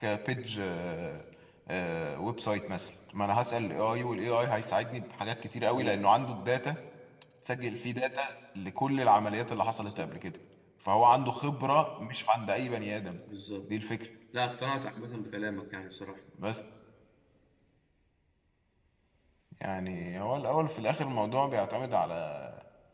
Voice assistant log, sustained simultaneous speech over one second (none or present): none